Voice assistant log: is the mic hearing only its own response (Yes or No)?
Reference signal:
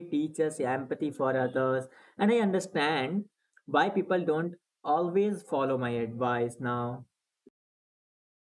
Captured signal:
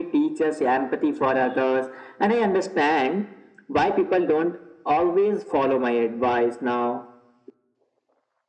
Yes